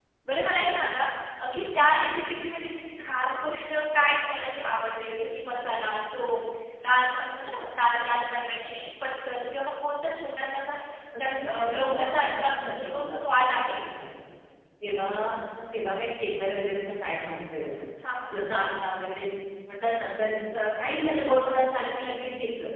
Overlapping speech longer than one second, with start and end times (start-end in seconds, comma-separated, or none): 11.2-13.8